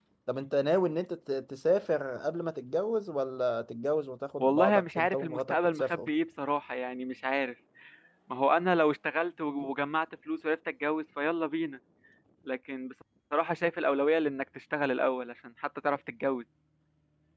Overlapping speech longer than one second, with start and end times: 4.4-6.1

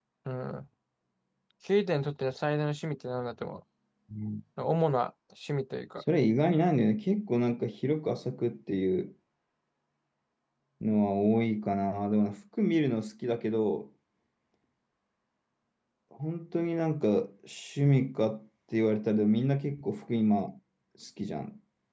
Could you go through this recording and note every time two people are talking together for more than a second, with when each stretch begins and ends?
none

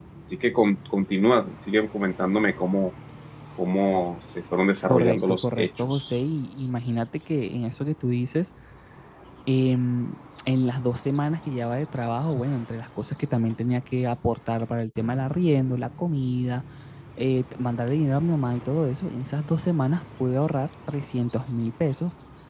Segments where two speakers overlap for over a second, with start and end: 4.9-6.1

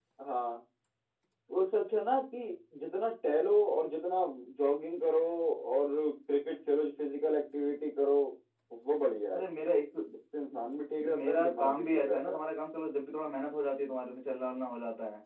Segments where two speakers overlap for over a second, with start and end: 11.2-12.4

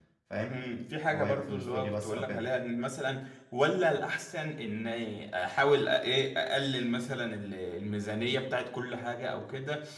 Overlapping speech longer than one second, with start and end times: 1.1-2.4

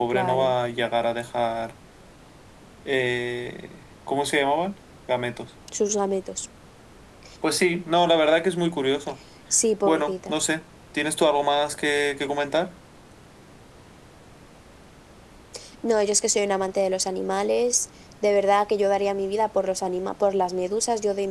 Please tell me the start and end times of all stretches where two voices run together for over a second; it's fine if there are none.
none

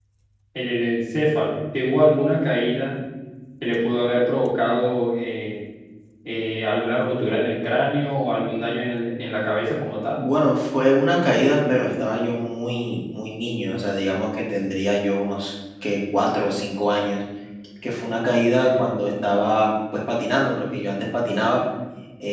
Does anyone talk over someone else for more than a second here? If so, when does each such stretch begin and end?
none

